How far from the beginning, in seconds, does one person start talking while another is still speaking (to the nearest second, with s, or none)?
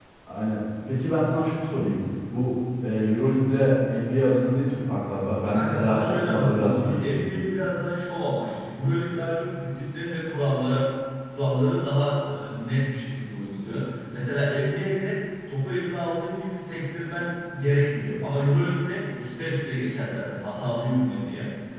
6 s